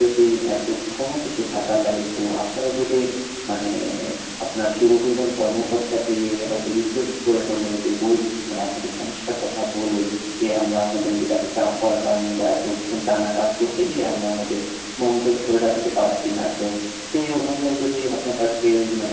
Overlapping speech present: No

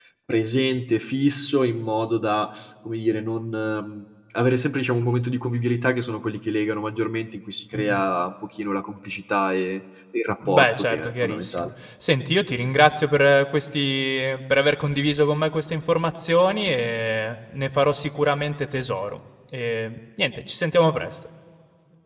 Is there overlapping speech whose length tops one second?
Yes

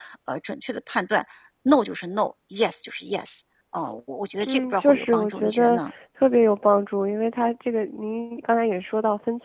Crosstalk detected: Yes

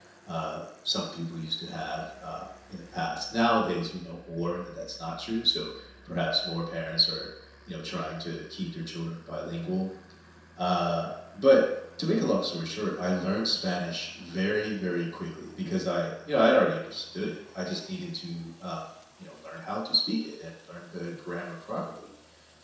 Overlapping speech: No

